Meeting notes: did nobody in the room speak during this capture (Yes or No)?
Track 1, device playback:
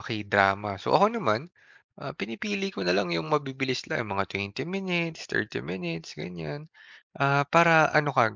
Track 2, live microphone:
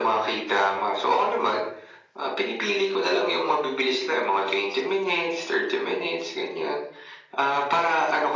Yes